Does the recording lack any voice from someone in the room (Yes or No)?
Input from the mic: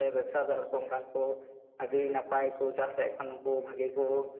Yes